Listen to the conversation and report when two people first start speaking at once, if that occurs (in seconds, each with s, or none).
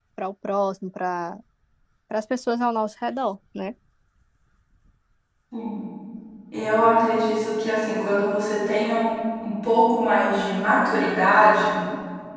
none